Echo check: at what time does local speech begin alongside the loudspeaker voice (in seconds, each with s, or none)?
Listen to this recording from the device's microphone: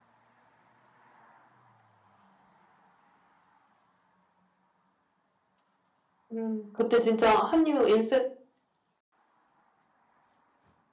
6.3 s